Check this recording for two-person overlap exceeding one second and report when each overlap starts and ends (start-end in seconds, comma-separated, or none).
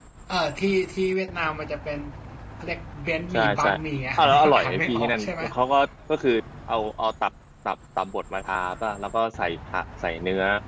4.2-5.4